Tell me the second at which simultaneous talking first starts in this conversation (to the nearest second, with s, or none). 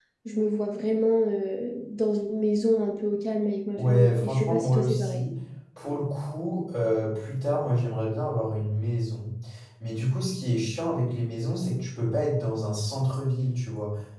4 s